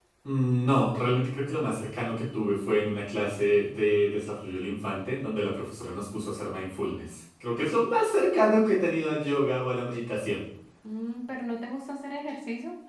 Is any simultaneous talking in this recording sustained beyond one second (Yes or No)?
No